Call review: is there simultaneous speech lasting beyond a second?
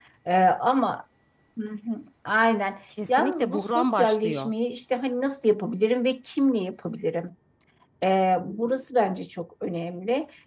Yes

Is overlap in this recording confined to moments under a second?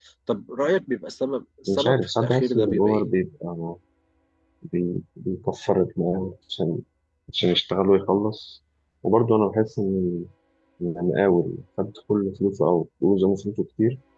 No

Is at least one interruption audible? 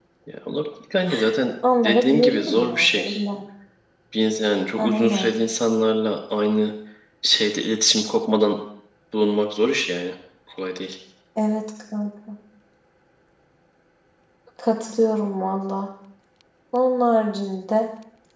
Yes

